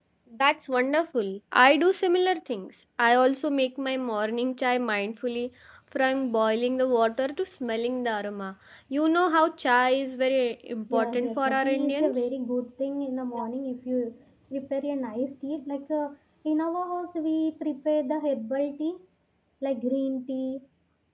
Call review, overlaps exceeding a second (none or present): present